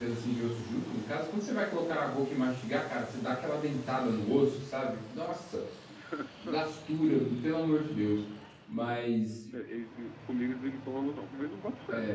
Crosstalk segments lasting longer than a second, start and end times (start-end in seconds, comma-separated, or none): none